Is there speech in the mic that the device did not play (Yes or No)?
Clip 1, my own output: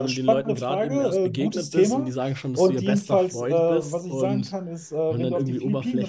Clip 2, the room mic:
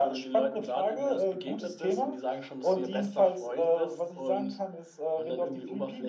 No